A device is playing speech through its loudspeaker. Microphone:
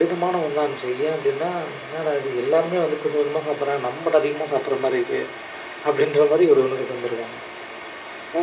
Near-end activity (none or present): none